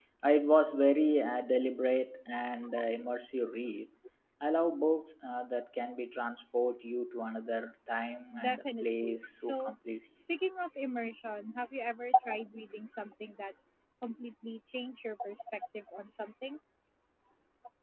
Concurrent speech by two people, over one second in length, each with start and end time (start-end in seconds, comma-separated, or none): 8.4-9.7